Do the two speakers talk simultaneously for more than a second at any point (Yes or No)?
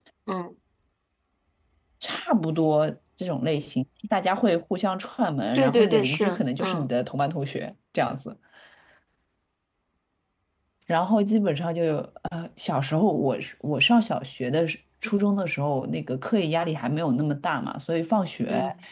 Yes